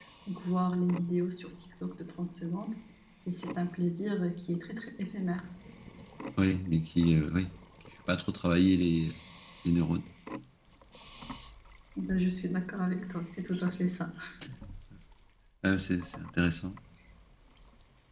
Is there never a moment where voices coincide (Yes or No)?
Yes